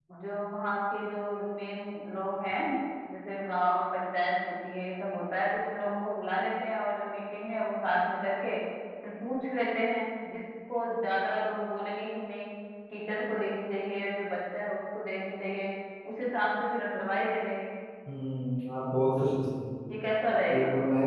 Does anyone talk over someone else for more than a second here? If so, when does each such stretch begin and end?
none

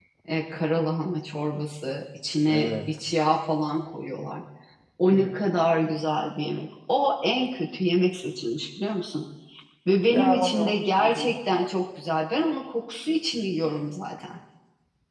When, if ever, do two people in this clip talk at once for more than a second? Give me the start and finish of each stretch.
10.1-11.3

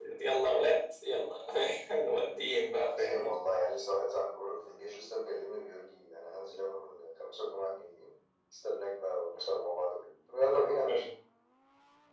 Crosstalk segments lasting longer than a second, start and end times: none

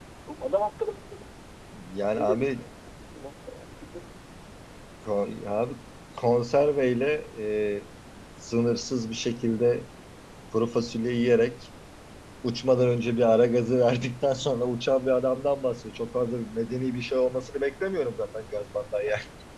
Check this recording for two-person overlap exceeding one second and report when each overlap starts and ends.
none

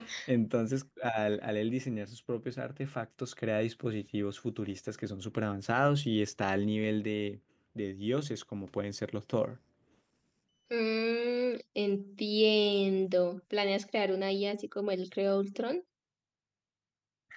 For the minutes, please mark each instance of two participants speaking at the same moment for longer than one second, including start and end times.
none

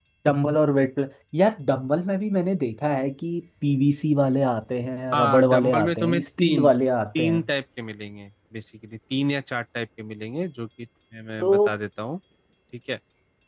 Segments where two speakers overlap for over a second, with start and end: 5.1-6.7

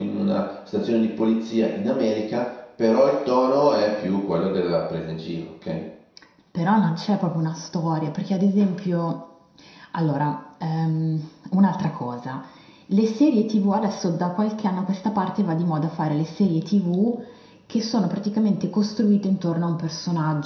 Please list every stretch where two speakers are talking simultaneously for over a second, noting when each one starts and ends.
none

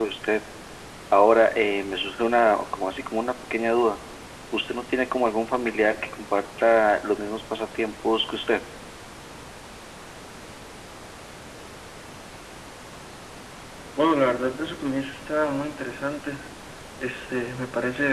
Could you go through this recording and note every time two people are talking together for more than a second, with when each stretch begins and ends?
none

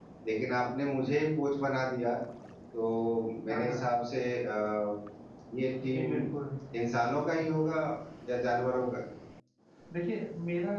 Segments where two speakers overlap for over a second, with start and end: none

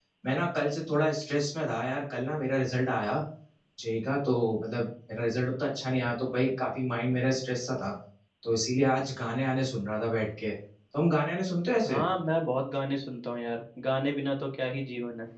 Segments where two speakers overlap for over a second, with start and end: none

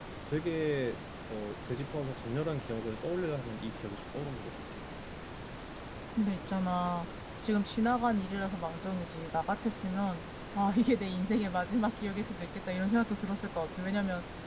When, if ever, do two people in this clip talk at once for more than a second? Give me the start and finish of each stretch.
none

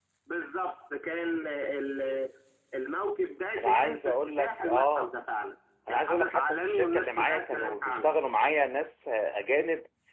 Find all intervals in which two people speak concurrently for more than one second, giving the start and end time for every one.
3.6-5.1, 5.9-8.1

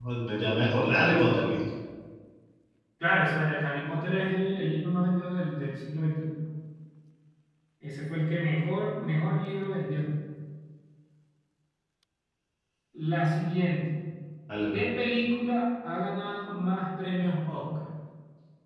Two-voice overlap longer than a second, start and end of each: none

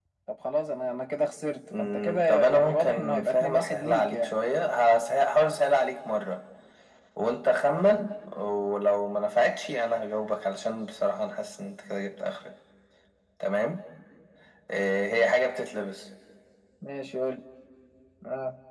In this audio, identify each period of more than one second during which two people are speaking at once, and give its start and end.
1.8-4.3

